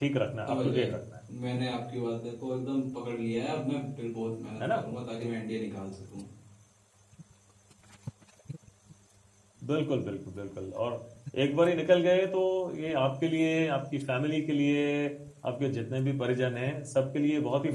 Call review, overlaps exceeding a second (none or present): none